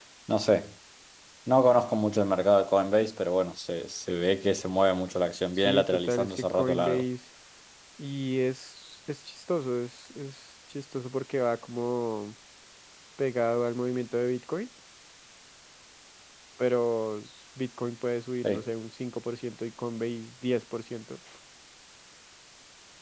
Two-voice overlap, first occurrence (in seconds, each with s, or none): 5.6 s